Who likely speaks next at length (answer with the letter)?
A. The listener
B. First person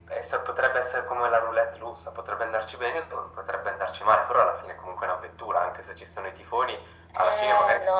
A